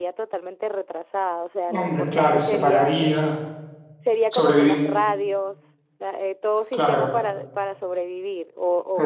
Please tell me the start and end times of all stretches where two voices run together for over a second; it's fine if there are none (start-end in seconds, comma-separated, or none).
1.7-2.9